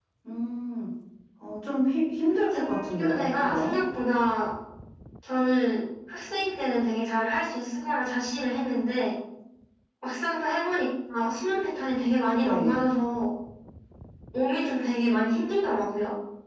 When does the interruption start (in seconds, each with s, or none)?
2.5 s